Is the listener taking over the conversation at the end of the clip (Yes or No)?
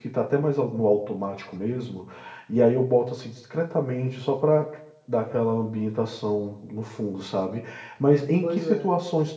No